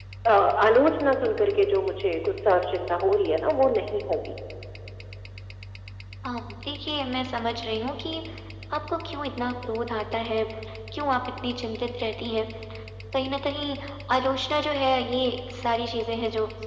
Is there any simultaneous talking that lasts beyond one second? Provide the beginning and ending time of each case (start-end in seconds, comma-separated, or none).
none